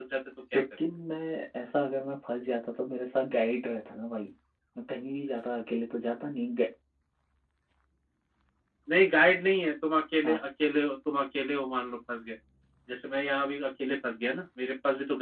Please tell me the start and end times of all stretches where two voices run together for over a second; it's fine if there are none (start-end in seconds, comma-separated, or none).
none